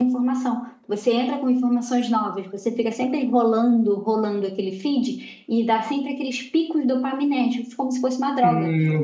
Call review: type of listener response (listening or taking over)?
taking over